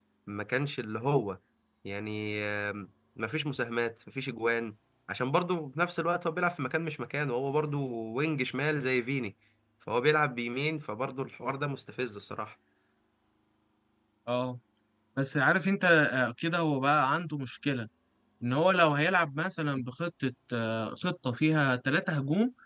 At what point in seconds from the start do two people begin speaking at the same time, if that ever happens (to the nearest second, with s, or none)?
none